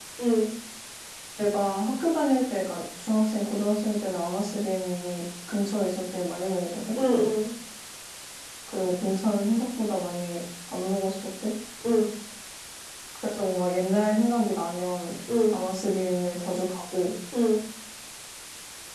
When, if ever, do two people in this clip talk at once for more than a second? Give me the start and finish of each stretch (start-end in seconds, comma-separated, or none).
none